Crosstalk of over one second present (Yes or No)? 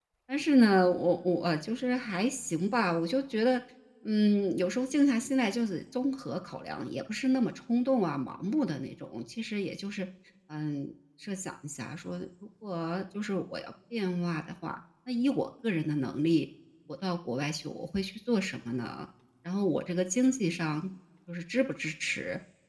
No